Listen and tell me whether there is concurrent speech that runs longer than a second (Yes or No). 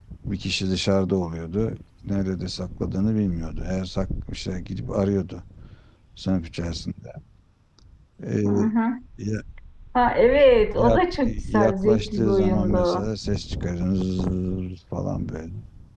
Yes